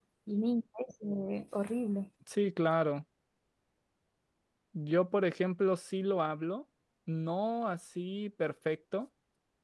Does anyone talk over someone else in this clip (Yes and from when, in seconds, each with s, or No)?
No